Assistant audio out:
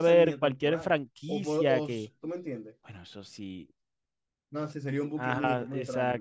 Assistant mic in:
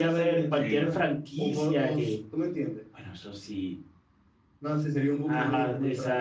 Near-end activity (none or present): present